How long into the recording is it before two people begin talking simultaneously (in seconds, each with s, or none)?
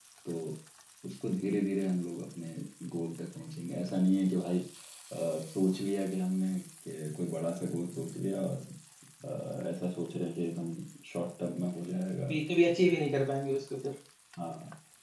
none